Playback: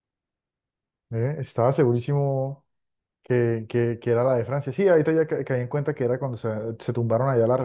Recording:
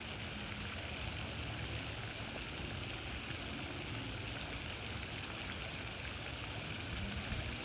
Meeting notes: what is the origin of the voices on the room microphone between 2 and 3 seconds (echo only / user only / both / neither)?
neither